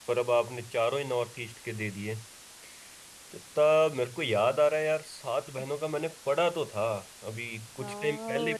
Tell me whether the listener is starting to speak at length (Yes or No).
Yes